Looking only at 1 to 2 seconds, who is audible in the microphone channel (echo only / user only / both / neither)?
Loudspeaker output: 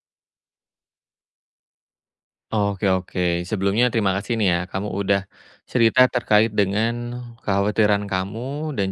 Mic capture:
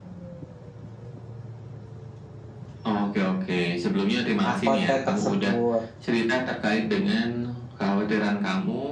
neither